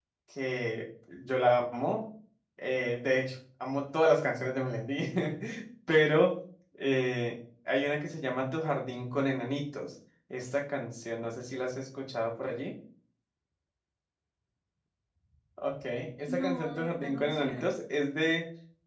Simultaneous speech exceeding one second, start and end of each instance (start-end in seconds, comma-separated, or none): 16.2-17.7